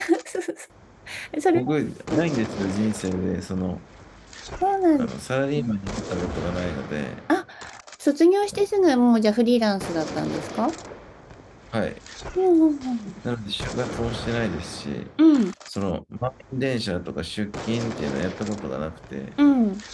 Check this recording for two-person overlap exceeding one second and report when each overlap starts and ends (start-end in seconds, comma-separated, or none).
none